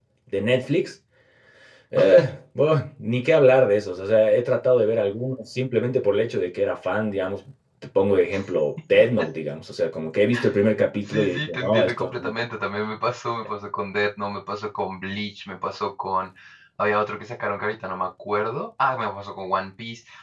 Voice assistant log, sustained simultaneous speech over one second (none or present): present